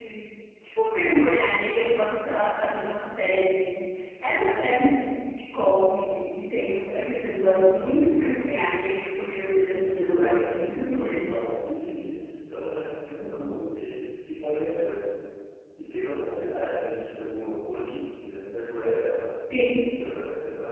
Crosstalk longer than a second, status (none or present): present